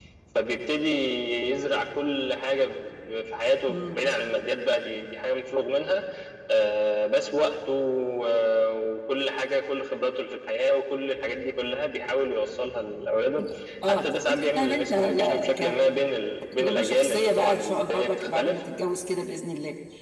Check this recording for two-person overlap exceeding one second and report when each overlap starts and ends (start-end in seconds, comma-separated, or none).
13.9-15.5, 16.5-18.6